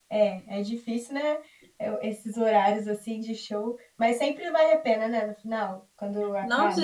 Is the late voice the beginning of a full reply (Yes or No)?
Yes